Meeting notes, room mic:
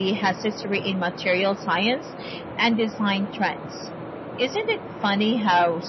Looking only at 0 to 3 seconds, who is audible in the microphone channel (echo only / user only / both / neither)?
echo only